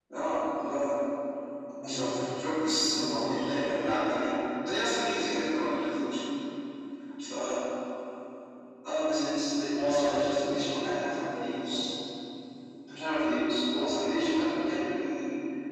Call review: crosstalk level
present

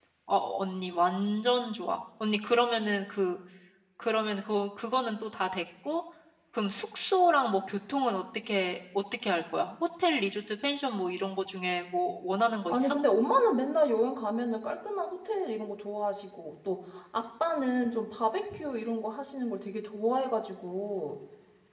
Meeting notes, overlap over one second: none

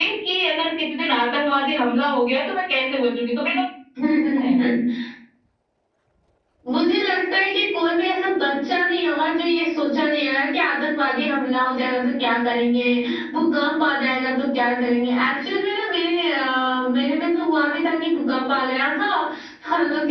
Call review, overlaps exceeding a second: none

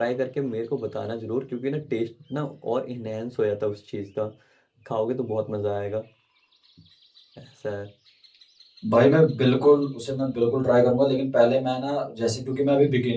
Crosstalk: none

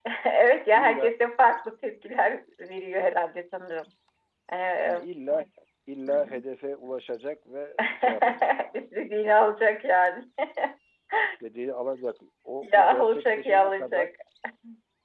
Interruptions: present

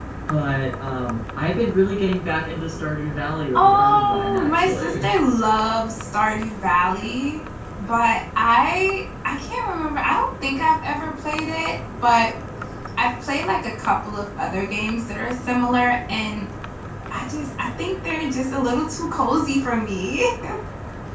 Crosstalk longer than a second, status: present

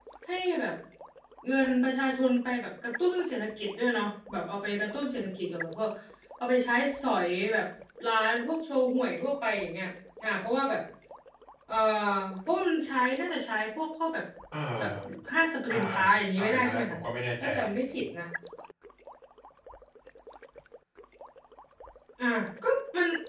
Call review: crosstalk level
present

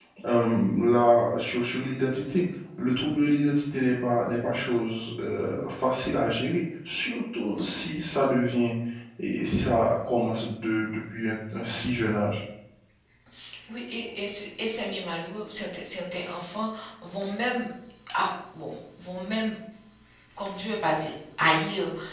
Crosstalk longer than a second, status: none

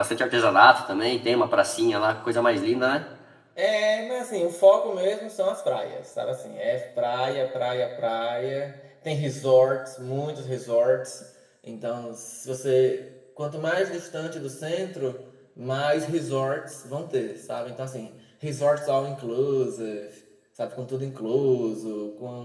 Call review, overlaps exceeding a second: none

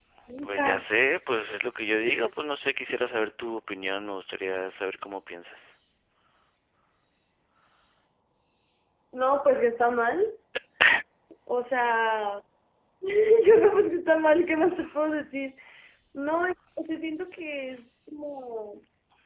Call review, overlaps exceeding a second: none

